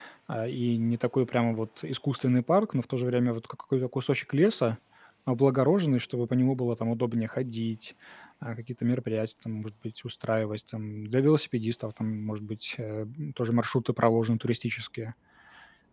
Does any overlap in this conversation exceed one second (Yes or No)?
No